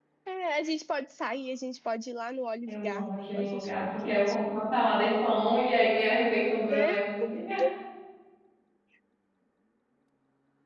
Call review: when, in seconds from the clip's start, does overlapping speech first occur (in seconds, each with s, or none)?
2.7 s